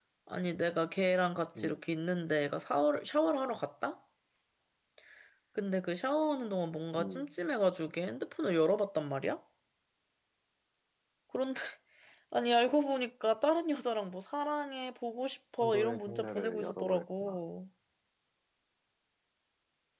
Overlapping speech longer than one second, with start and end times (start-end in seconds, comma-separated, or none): 15.6-17.4